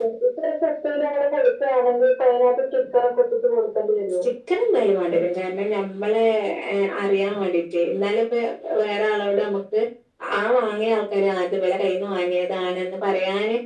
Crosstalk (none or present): none